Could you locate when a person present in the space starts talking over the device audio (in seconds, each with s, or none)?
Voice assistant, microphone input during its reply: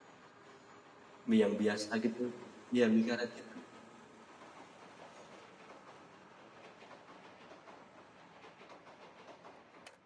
1.3 s